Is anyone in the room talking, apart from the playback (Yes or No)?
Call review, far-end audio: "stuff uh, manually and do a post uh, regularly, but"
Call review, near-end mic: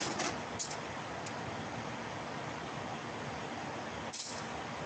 No